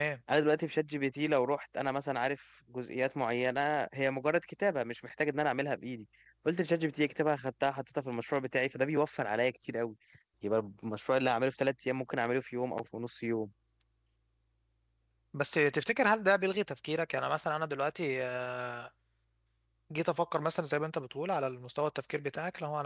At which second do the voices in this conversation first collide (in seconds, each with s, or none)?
none